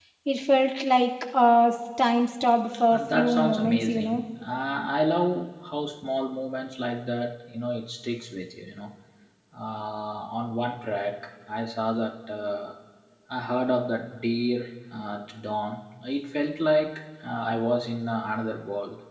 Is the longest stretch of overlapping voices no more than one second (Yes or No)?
No